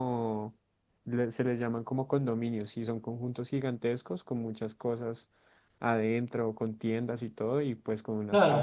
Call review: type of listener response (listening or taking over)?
taking over